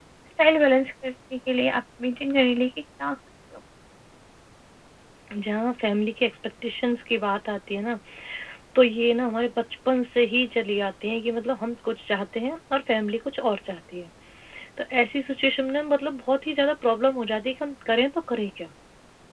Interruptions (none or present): none